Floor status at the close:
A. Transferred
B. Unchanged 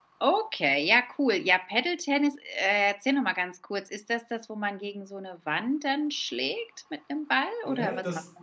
A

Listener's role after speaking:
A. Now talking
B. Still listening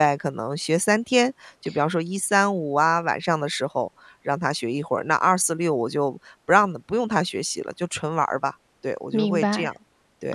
A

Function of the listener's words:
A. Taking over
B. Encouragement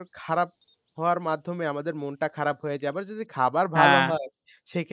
B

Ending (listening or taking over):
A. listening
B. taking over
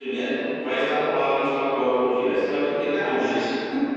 B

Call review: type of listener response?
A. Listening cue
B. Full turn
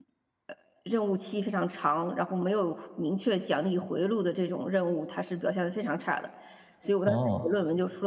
A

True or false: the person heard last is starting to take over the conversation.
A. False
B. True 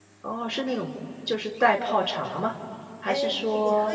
B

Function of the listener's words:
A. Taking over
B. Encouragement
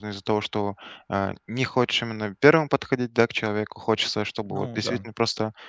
B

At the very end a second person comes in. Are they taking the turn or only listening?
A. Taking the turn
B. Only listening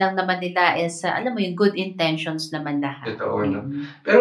A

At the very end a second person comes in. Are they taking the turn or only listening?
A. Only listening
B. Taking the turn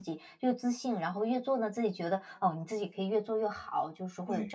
A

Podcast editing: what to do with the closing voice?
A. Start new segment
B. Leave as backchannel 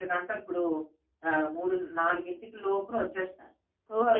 A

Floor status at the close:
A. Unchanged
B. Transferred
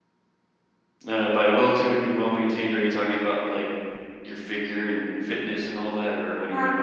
B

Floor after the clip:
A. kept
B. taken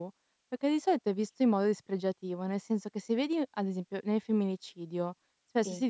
A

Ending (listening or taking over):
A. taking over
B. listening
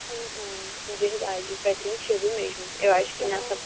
B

